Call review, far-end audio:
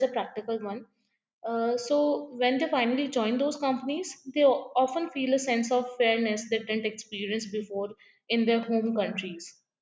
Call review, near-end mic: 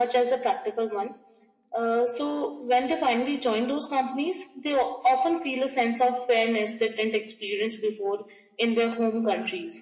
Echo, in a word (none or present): present